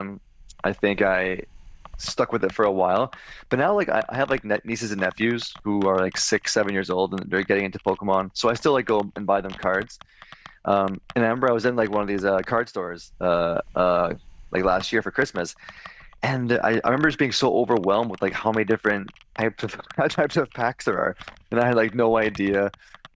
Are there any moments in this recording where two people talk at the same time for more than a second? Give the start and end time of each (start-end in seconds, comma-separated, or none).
none